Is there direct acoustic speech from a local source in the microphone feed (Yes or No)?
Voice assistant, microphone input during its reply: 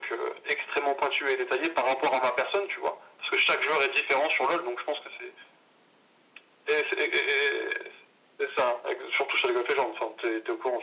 No